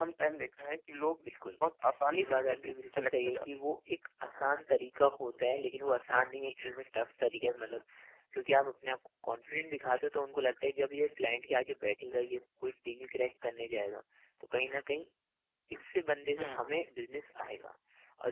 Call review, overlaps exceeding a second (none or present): present